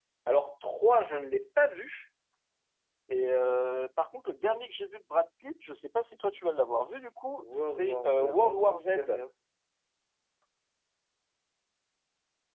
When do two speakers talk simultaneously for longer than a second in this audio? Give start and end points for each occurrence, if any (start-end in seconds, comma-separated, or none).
7.4-9.1